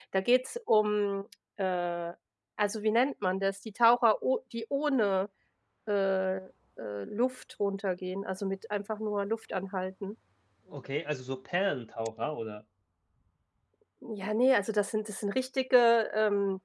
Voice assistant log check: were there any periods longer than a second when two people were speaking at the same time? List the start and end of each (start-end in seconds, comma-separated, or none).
none